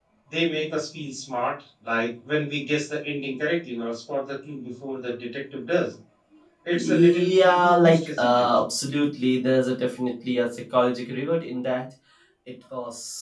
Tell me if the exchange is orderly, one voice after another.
No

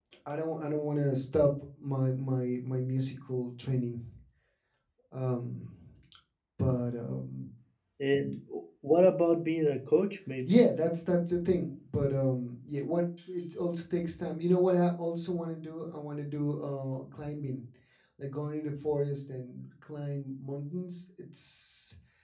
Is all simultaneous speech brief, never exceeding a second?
Yes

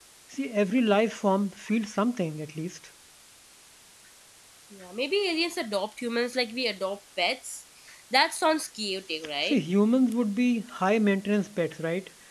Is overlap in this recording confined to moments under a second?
Yes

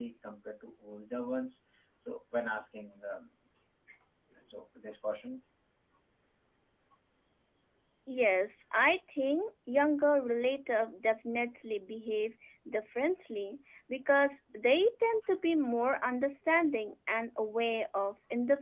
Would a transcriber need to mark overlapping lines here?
No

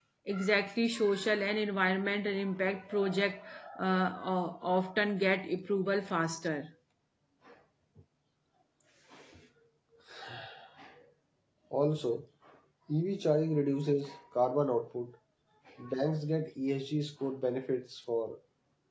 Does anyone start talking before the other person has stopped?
No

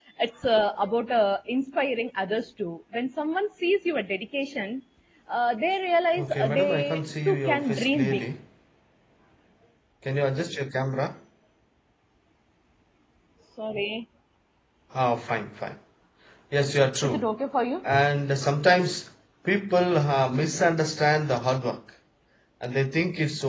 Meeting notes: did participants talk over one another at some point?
Yes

